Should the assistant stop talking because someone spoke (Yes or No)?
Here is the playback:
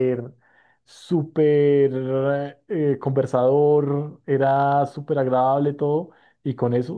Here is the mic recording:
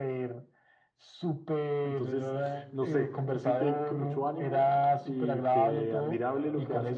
Yes